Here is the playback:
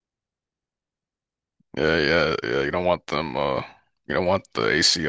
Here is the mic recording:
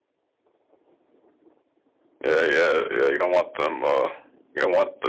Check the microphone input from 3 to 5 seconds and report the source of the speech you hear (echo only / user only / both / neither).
echo only